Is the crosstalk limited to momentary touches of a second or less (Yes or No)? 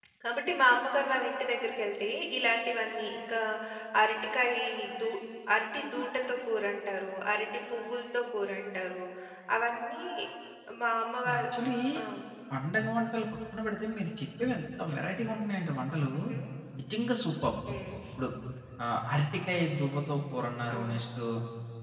Yes